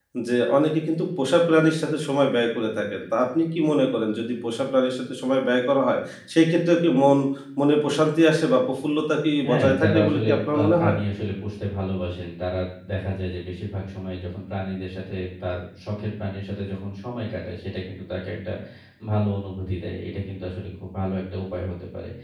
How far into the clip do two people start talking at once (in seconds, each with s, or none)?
9.4 s